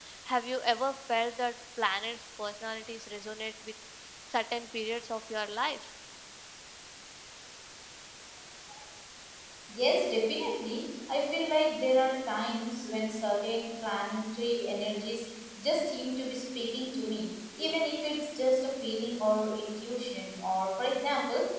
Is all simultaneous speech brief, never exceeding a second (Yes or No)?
Yes